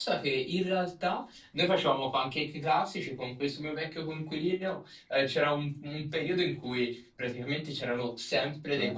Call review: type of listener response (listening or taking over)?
listening